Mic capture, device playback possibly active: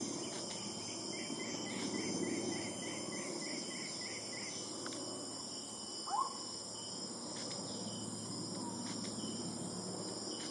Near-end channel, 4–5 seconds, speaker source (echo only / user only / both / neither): neither